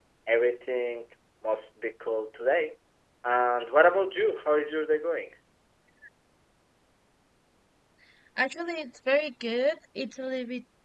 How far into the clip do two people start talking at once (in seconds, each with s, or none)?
none